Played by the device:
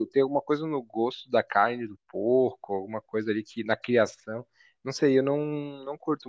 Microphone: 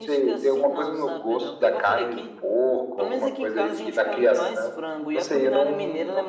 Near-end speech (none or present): present